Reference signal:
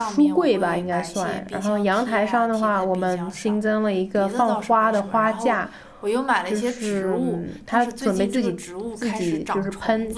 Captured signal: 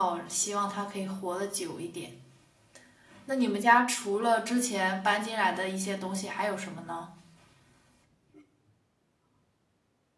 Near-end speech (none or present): present